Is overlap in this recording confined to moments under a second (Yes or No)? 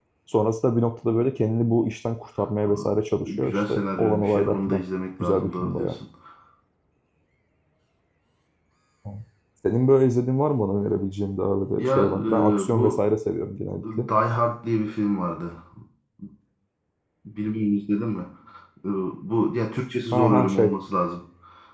No